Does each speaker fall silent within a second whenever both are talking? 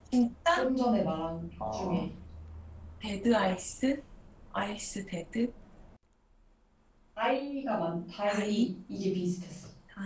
Yes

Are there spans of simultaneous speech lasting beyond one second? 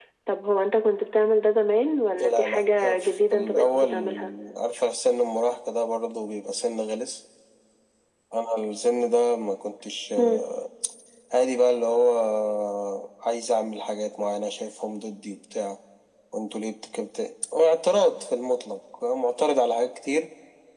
Yes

